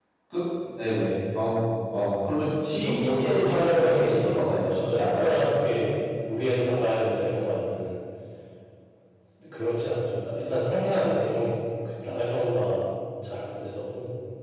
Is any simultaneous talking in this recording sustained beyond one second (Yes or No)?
Yes